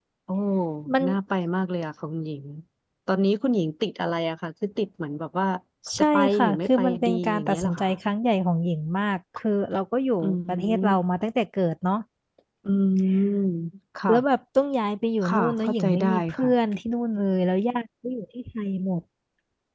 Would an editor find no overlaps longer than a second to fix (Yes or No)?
No